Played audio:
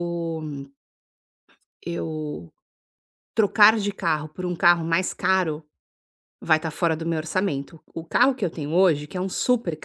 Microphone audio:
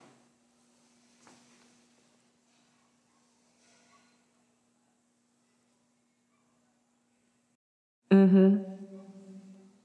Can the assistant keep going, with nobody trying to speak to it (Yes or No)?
No